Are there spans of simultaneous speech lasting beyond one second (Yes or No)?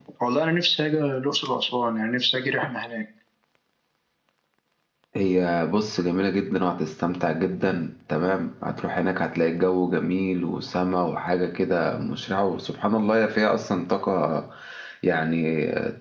No